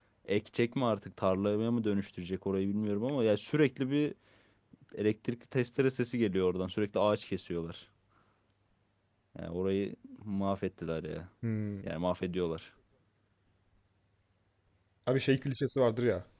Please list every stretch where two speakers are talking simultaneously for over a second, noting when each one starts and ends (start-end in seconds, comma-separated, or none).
none